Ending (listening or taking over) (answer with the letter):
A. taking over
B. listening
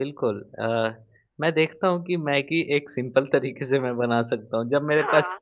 B